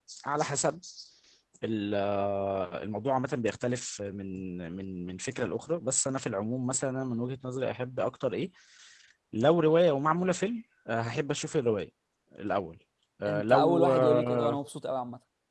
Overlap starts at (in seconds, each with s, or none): 13.3 s